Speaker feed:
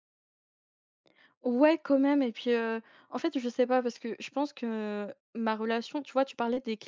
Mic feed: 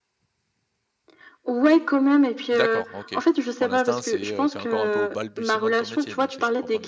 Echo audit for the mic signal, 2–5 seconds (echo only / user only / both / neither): both